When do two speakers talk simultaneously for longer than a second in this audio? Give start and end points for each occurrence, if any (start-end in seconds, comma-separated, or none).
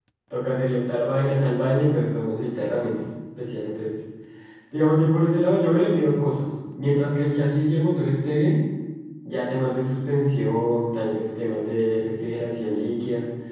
none